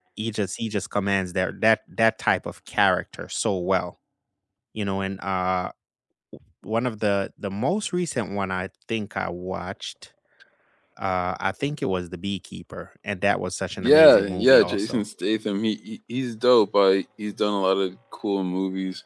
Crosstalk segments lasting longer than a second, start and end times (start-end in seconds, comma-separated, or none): 13.8-15.0